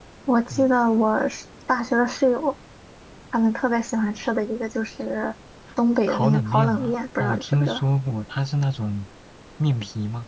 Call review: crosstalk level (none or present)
present